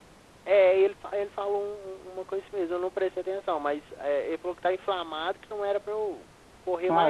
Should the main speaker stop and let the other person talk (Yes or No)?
Yes